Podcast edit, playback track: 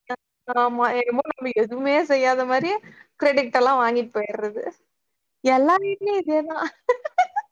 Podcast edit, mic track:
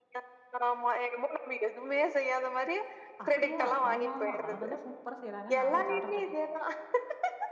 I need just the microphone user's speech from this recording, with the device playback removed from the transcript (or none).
அப்டியா ஆமா ஆமா அவங்கதா சூப்பரா செய்யறாங்கன் நாமளு ஜால்ரா தட்